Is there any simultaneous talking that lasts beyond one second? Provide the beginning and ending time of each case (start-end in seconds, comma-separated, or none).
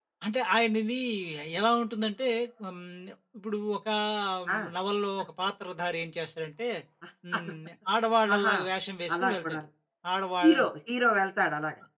none